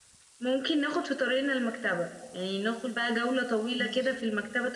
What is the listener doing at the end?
listening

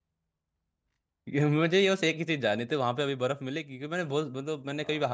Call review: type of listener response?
listening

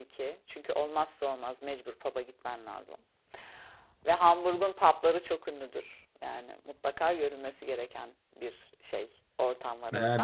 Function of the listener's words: taking over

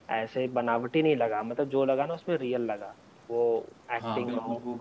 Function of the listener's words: taking over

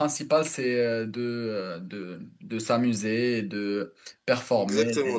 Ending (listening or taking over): taking over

